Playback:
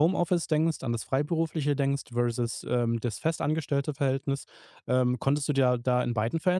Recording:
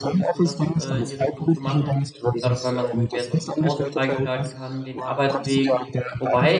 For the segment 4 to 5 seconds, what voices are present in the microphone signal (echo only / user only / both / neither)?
both